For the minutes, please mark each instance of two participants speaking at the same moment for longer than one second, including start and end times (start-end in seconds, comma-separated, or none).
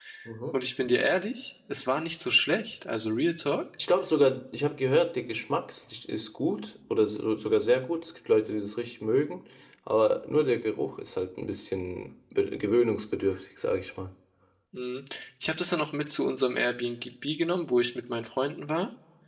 none